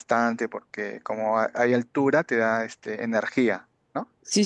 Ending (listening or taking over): taking over